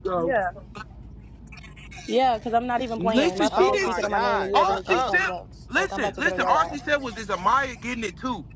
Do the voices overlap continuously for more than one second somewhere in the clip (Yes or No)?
Yes